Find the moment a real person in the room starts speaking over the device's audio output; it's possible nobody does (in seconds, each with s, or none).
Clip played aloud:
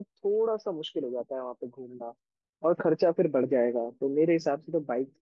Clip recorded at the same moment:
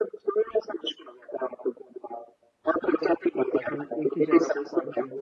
3.5 s